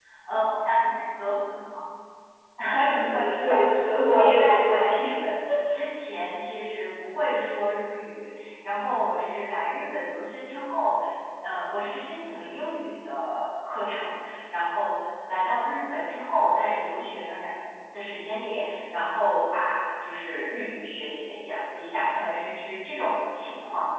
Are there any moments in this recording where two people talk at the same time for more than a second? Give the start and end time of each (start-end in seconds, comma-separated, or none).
3.0-5.1